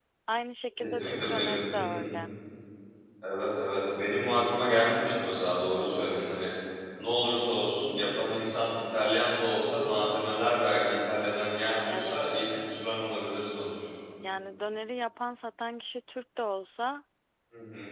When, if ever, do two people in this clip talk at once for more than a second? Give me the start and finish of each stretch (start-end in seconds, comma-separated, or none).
0.8-2.0